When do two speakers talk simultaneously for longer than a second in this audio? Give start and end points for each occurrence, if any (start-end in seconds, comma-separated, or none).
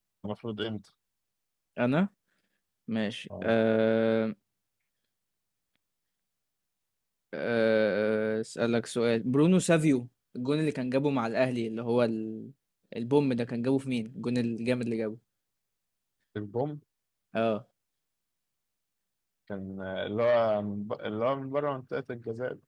none